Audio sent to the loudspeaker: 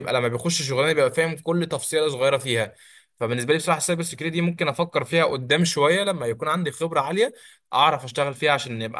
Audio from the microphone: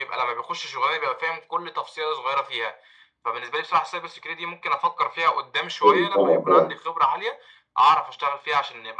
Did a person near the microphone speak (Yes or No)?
Yes